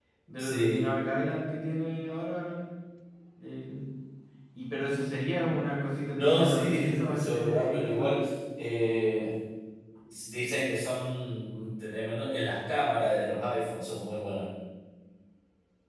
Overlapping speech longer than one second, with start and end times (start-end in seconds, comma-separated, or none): 6.2-8.1